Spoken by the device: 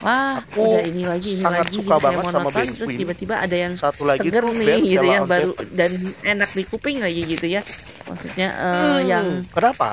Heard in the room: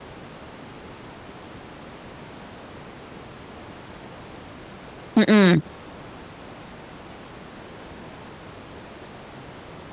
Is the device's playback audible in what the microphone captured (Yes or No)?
No